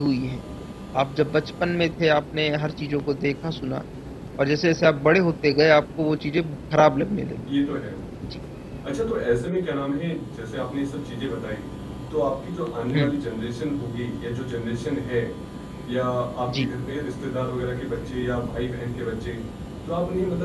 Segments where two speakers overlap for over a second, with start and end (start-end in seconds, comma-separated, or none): none